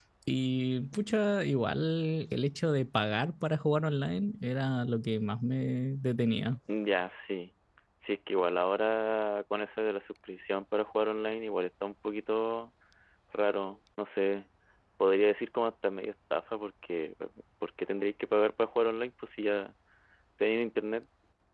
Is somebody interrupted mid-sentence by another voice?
No

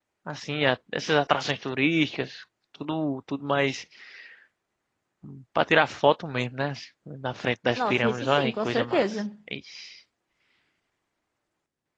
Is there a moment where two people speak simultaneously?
Yes, from 7.8 s

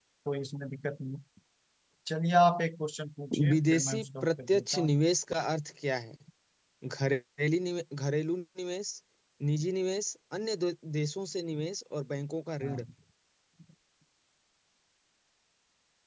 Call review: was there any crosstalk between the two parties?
Yes, from 3.3 s

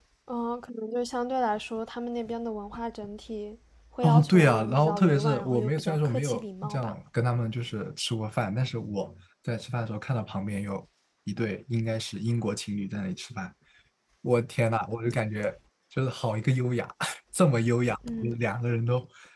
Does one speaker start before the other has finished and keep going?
Yes, from 4.0 s

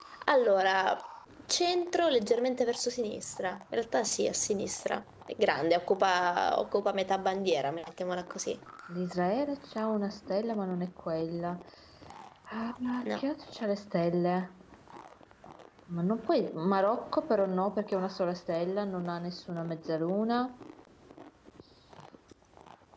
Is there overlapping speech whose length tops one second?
No

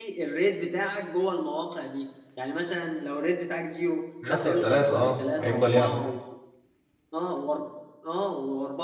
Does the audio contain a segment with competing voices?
Yes, from 4.2 s

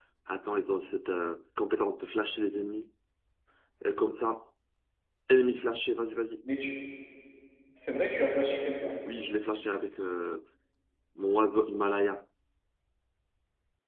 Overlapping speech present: No

